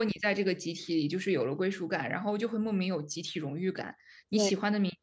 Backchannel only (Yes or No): Yes